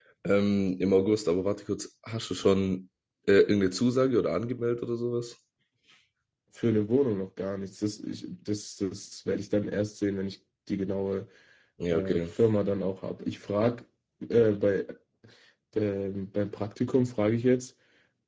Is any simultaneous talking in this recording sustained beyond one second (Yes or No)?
No